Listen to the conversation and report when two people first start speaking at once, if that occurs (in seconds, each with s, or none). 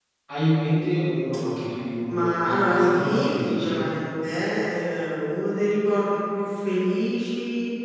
2.1 s